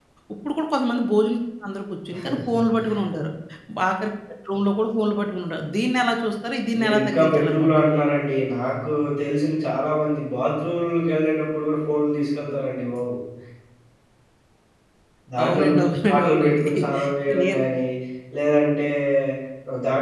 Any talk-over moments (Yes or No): Yes